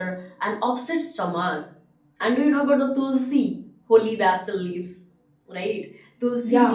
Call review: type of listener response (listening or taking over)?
listening